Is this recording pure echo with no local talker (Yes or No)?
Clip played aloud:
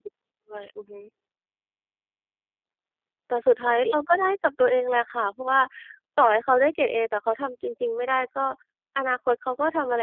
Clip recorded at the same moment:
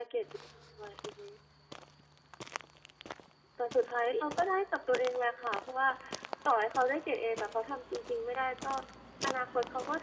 Yes